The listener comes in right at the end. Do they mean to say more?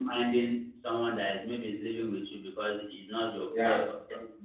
No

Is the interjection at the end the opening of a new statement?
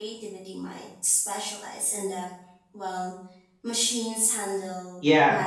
Yes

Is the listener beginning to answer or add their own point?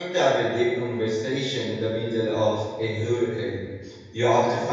No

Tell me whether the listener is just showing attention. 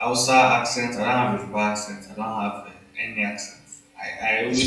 Yes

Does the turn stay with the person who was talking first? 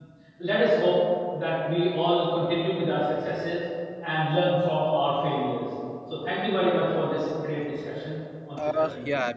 No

